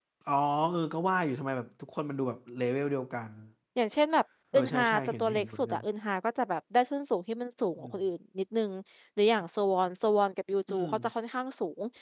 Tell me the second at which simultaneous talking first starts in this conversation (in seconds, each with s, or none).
4.5 s